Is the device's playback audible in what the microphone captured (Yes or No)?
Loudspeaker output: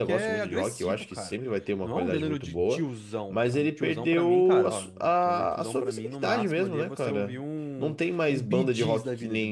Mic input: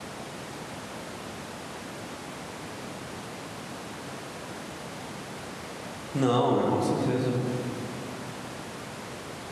No